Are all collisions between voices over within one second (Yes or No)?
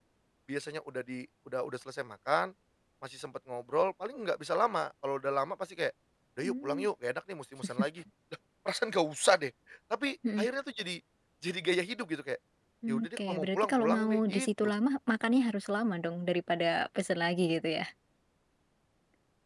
No